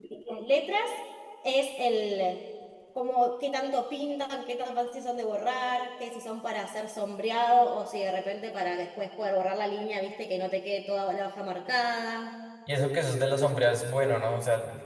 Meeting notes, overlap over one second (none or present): none